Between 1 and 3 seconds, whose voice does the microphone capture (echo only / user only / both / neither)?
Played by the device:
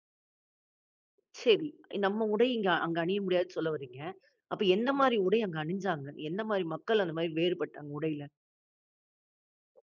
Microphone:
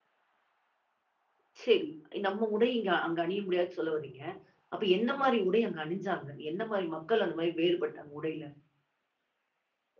echo only